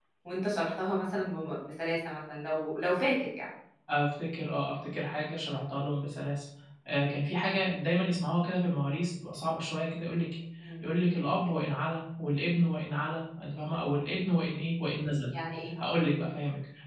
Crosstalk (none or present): none